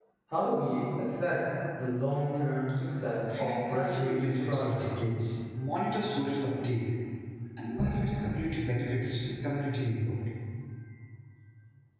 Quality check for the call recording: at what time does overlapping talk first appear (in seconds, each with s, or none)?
3.3 s